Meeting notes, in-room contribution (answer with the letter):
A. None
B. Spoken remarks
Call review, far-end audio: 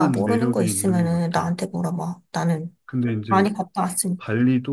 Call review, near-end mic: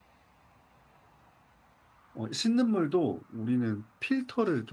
B